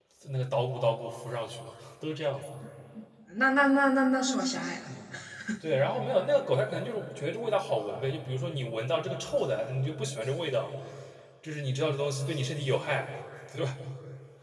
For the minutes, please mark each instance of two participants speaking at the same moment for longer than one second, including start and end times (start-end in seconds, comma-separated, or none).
none